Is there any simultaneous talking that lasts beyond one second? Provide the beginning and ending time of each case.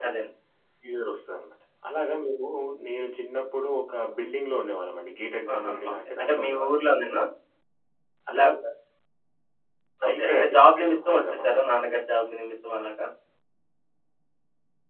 5.5-6.9, 10.1-11.6

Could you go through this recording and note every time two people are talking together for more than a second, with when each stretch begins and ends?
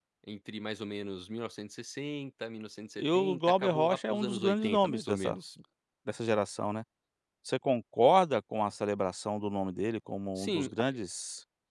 3.0-5.4

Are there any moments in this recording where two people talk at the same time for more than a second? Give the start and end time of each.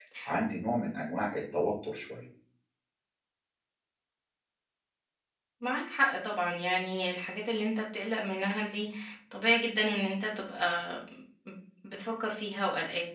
none

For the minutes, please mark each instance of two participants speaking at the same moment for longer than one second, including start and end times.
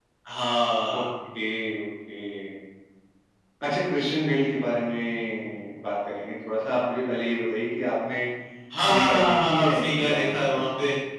8.9-10.6

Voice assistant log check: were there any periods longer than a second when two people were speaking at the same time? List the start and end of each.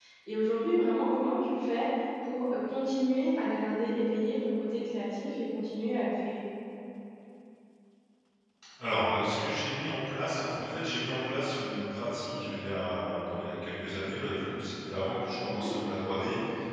none

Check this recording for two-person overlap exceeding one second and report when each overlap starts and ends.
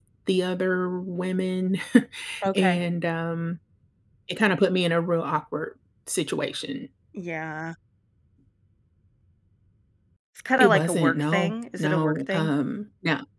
10.6-12.5

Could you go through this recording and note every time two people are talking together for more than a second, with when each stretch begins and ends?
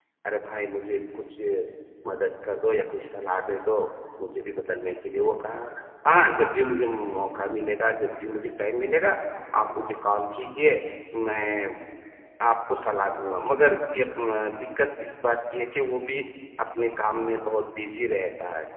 none

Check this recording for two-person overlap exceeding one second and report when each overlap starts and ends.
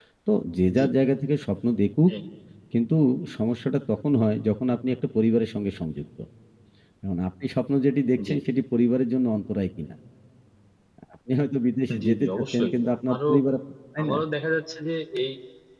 12.0-13.3

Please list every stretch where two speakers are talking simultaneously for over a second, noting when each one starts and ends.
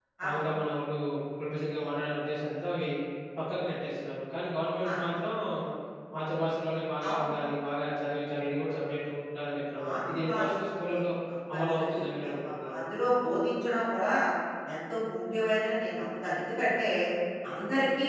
9.8-11.0, 11.5-12.8

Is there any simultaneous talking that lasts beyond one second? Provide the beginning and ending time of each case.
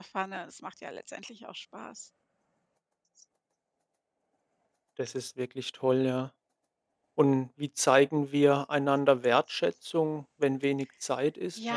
none

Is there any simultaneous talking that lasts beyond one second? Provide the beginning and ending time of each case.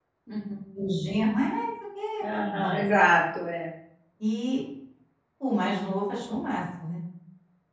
none

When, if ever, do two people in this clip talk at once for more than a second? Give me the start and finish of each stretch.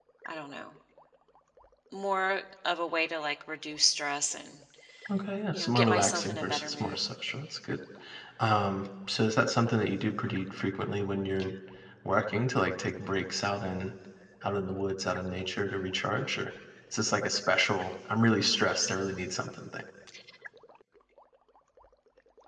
5.5-7.0

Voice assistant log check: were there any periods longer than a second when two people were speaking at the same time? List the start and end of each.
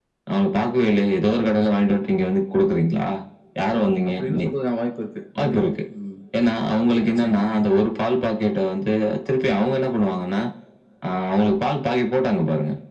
none

